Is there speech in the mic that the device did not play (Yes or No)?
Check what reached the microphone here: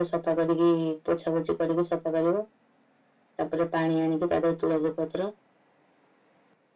No